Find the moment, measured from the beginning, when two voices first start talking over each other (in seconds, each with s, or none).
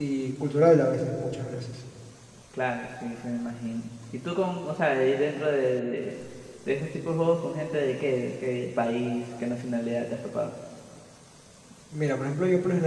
none